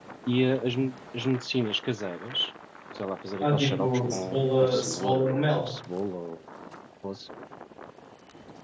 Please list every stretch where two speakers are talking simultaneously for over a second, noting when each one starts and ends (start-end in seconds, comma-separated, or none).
3.4-5.6